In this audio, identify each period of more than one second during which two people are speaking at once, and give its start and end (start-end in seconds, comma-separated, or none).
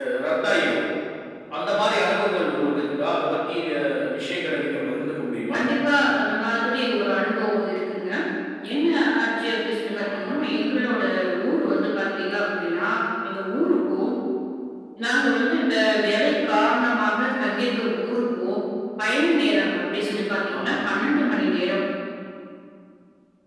none